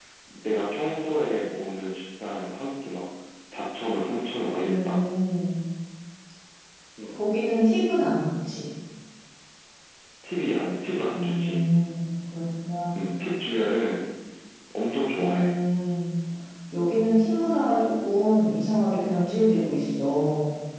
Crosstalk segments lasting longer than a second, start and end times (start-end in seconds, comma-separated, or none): none